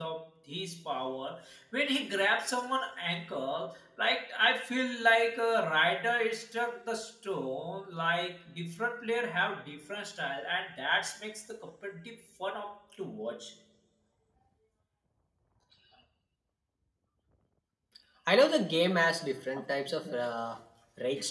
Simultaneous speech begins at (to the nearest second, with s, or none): none